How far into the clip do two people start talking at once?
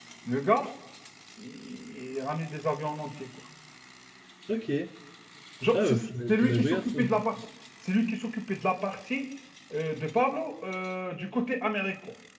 6 s

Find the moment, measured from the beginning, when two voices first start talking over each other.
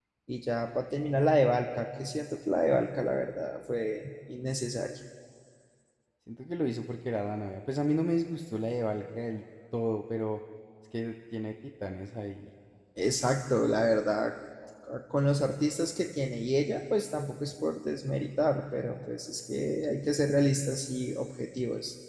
none

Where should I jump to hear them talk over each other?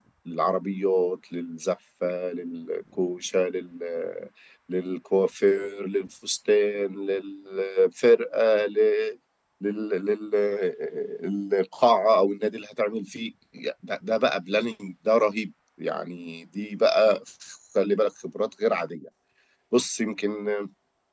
none

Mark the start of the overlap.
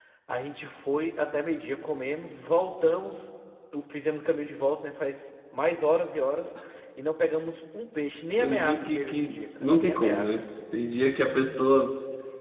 8 s

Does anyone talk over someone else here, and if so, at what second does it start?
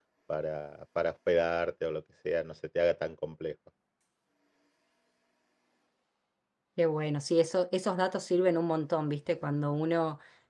none

